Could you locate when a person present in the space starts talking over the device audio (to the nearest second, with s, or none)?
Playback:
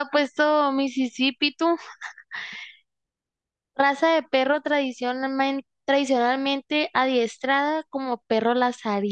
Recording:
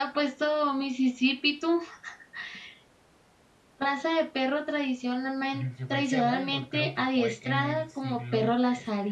6 s